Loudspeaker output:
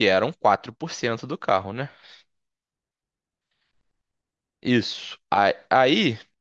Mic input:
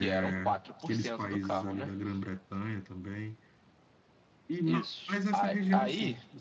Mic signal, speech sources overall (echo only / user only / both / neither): both